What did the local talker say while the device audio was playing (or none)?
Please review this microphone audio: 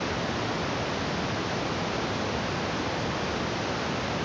none